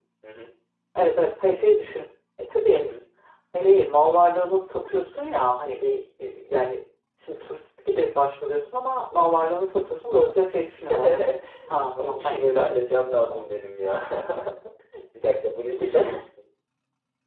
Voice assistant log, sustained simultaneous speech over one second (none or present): present